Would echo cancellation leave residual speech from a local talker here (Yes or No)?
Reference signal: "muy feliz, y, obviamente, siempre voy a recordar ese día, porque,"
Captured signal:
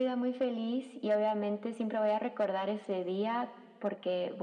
No